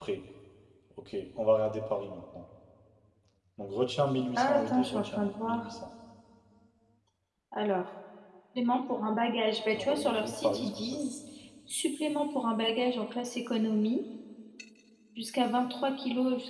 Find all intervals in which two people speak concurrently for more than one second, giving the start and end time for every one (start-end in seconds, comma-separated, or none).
4.3-5.7, 9.7-11.0